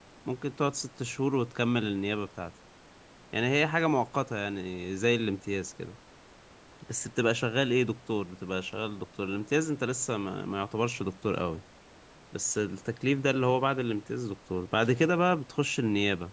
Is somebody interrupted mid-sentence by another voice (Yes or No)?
No